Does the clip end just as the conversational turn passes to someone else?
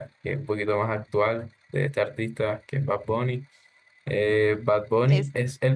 No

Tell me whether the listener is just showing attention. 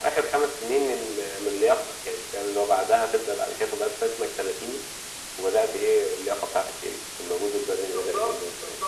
No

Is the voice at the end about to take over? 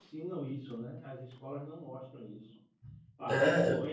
No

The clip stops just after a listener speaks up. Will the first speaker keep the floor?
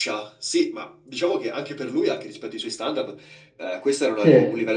Yes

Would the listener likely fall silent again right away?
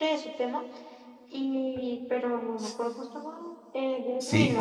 No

